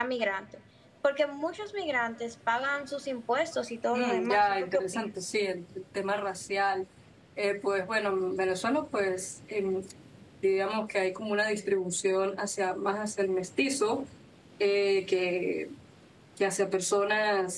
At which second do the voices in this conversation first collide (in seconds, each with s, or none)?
3.9 s